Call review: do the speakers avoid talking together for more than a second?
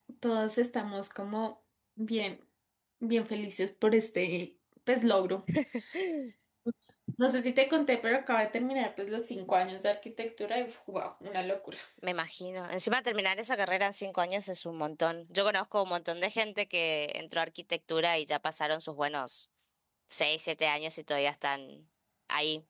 Yes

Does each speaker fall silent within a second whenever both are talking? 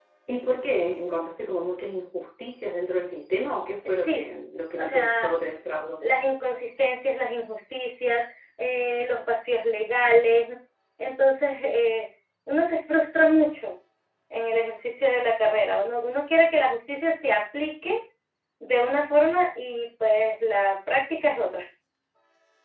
Yes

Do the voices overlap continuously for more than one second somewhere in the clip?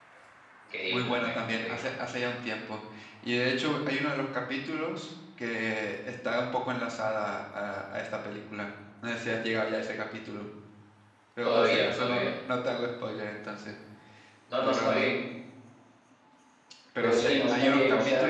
Yes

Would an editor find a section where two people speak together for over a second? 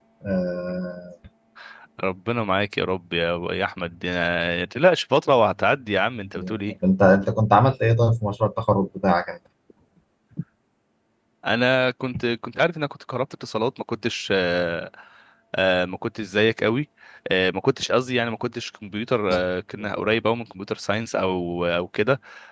No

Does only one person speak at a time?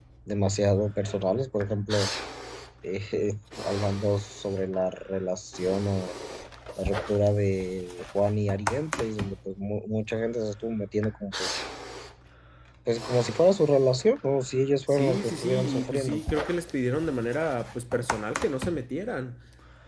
No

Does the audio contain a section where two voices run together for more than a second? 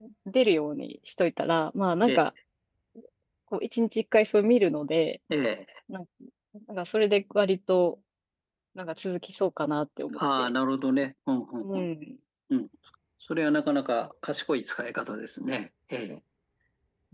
No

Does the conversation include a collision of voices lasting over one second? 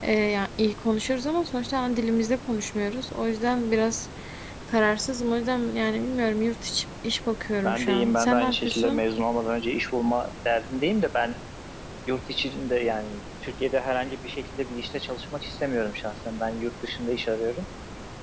Yes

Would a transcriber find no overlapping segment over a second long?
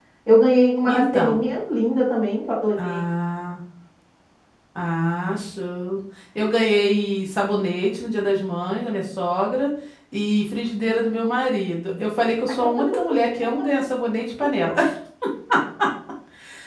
Yes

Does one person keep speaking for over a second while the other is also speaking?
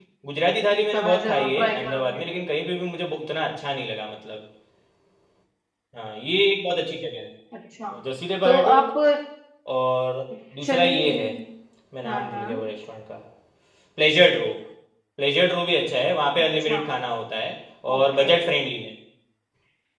Yes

